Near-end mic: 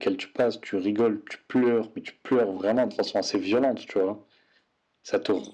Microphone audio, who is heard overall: echo only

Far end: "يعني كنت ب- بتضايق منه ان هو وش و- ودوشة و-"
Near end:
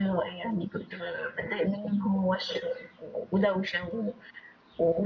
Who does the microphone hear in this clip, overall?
echo only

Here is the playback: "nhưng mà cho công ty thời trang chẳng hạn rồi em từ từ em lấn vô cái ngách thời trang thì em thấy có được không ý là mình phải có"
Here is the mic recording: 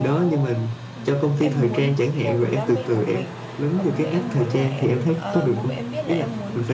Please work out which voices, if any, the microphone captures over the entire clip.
both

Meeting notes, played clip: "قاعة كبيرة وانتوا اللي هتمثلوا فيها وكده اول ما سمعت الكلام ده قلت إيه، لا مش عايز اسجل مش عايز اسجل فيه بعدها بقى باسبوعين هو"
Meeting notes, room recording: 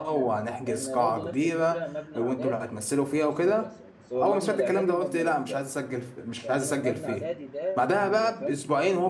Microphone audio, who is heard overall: both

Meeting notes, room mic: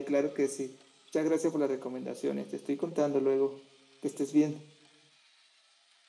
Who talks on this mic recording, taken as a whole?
echo only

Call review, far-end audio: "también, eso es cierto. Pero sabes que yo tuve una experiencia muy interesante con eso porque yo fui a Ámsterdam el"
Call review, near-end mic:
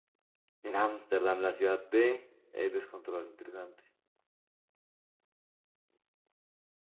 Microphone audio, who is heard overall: user only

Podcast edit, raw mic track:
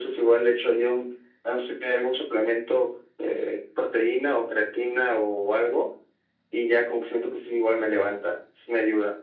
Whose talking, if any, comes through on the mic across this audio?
echo only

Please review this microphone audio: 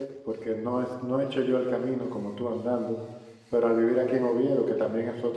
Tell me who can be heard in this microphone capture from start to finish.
user only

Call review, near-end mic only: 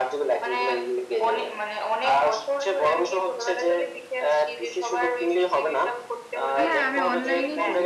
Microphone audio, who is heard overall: both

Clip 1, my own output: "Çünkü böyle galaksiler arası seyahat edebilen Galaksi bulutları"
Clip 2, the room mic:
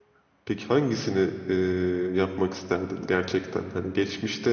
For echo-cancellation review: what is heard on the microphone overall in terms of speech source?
user only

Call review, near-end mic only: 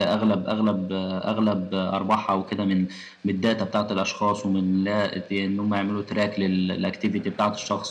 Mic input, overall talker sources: echo only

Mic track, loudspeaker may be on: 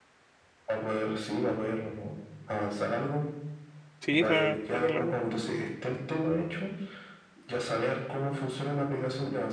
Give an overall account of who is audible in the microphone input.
both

